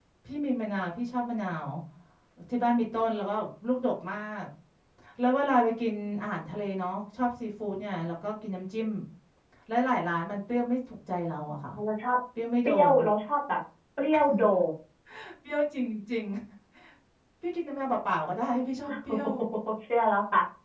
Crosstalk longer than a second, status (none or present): none